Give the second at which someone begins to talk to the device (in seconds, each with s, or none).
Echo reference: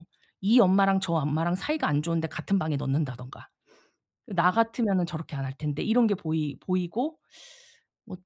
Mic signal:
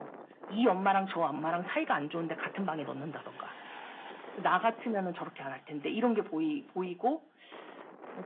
none